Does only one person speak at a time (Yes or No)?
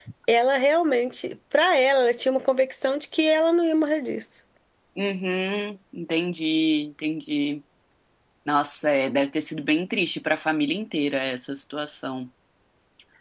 Yes